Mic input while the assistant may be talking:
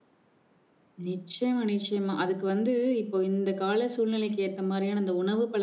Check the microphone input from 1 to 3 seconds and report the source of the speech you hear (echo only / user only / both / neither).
user only